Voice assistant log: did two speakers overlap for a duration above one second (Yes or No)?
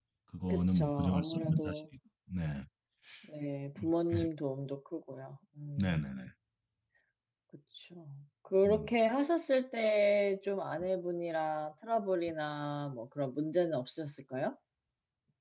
Yes